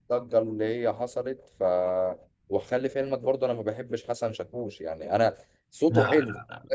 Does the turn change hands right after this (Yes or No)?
No